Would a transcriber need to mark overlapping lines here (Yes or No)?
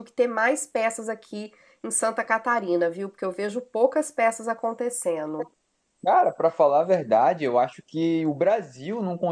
No